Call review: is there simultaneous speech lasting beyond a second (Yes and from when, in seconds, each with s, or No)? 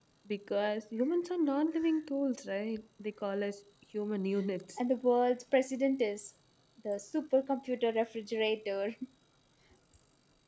No